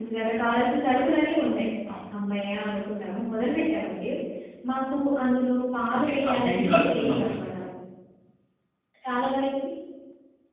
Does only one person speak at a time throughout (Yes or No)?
No